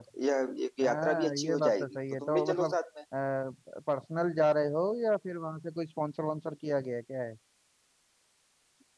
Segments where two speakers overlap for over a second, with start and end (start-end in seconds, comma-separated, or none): 0.8-2.8